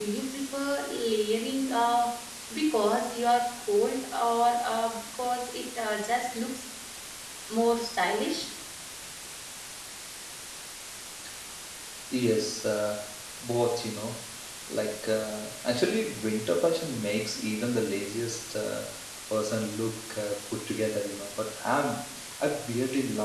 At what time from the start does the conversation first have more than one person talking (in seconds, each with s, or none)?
none